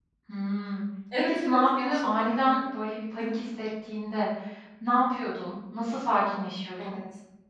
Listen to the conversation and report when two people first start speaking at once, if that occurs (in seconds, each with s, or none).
1.2 s